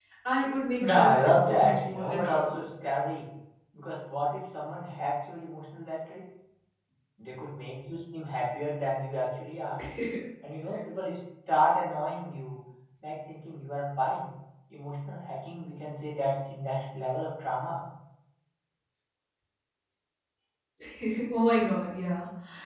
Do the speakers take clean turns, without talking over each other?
No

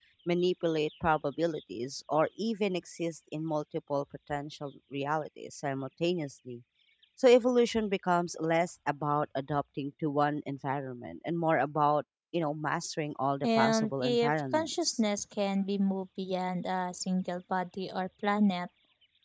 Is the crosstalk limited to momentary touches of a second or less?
No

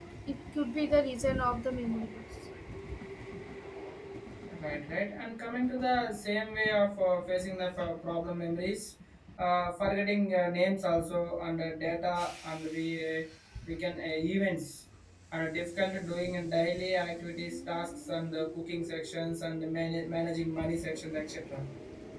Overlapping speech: No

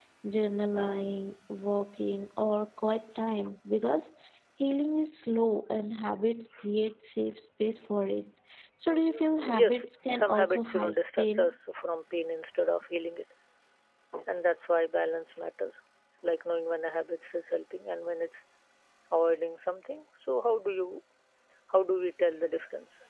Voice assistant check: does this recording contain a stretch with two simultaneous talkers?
Yes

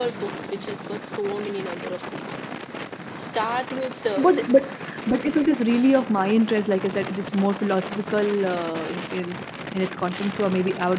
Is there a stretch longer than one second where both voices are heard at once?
No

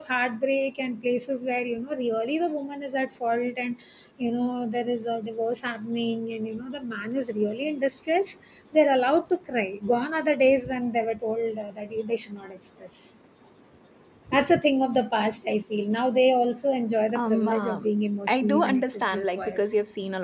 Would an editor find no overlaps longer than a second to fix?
No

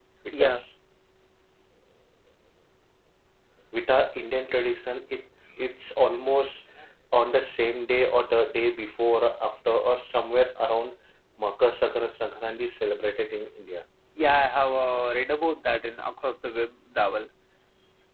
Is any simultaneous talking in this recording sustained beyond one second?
No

